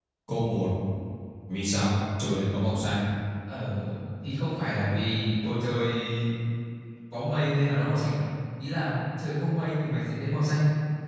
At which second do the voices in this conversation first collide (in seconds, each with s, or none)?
none